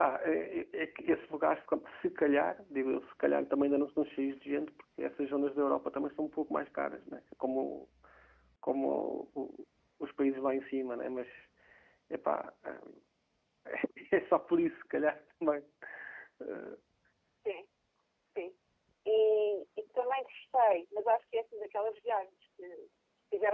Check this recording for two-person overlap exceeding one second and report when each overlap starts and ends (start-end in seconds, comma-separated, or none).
none